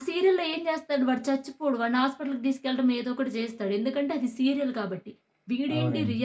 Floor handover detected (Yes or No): No